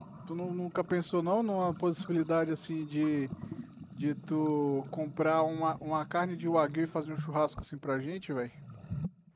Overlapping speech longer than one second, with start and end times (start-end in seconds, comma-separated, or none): none